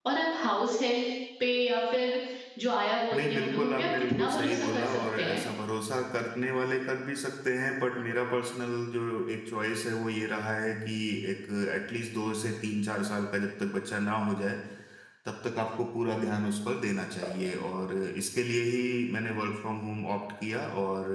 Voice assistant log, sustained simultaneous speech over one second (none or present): present